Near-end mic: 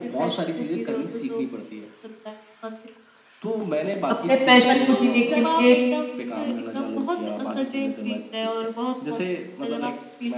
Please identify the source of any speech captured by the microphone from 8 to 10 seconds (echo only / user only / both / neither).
echo only